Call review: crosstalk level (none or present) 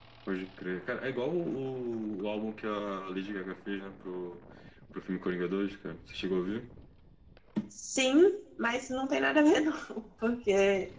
none